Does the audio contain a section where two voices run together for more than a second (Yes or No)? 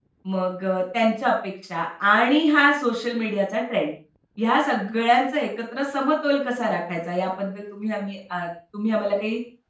No